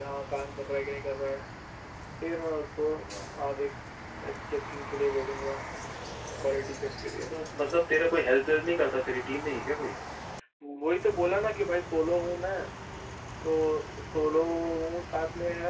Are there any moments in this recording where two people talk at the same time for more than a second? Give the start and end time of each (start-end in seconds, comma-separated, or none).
none